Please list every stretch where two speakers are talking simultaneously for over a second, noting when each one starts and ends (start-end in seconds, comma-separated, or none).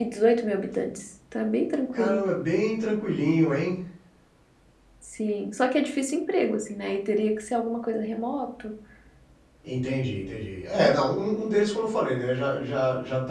none